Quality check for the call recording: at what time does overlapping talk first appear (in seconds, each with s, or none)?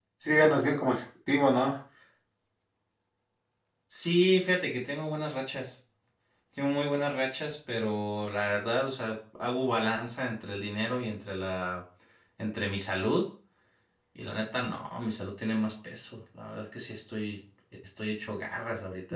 none